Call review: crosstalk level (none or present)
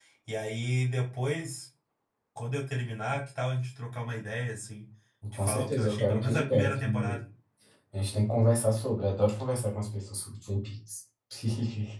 present